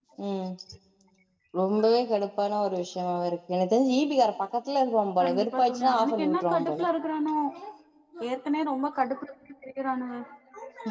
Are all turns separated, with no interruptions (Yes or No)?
No